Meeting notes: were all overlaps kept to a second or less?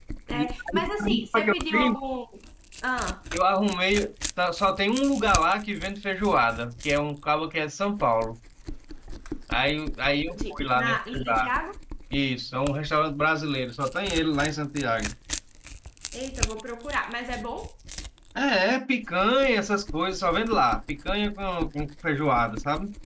No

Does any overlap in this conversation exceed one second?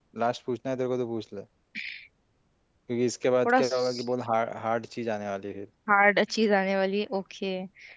No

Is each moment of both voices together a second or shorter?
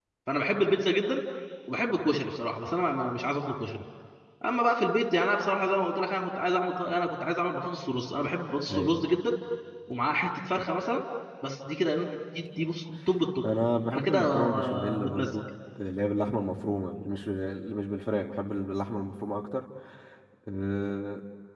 No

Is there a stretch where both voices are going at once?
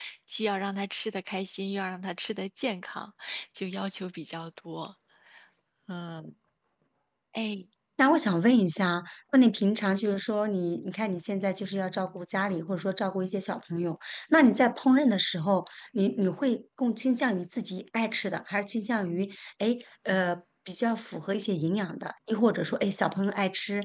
No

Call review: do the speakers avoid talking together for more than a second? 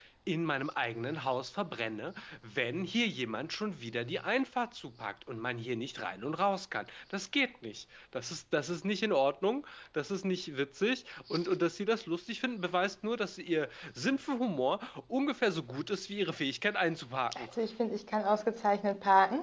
Yes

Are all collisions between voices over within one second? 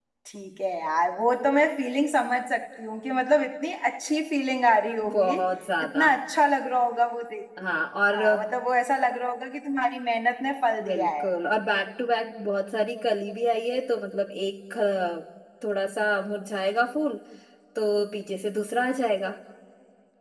Yes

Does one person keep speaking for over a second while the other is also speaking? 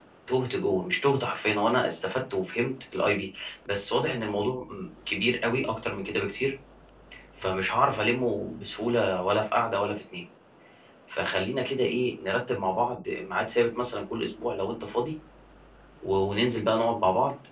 No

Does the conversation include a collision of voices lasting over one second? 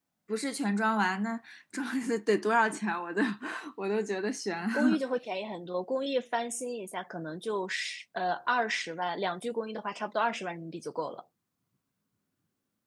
No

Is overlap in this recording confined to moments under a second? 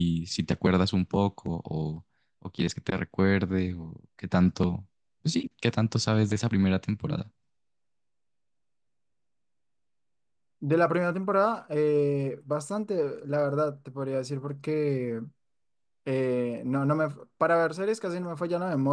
Yes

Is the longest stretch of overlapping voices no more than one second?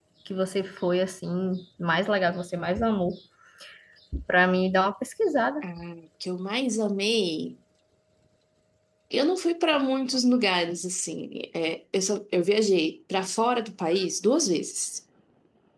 Yes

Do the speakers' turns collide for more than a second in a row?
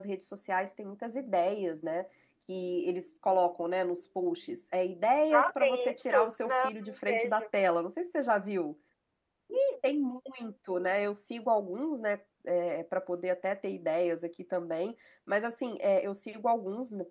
Yes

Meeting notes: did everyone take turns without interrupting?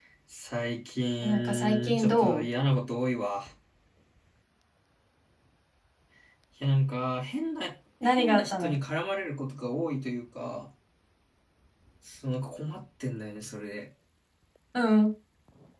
No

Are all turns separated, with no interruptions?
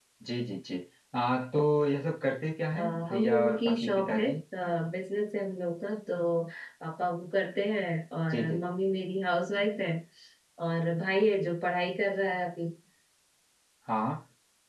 No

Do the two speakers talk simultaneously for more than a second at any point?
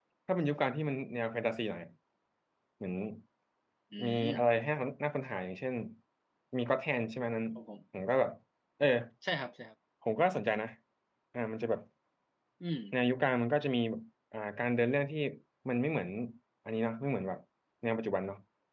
No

